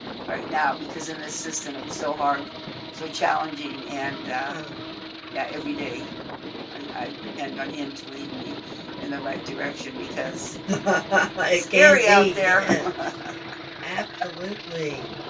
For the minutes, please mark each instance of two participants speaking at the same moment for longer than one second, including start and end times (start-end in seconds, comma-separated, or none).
11.4-12.7